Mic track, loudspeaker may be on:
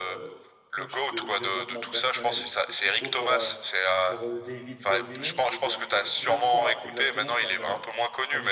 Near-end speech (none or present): present